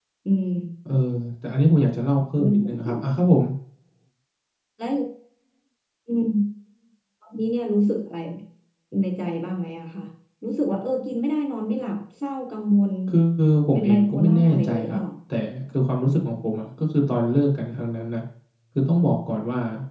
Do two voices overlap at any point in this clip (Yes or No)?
Yes